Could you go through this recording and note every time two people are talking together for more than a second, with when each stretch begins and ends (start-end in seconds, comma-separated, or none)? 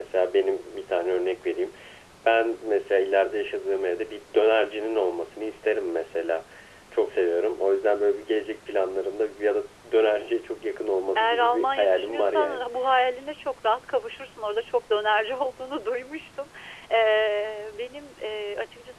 11.2-12.6